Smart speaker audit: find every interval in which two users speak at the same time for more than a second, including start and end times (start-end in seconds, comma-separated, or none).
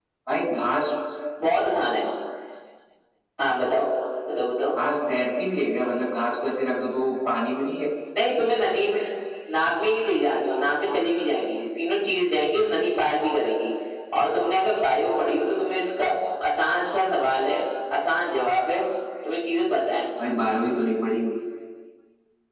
none